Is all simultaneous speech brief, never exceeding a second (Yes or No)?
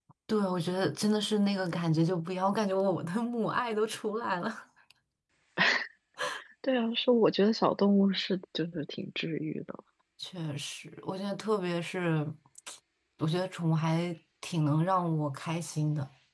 Yes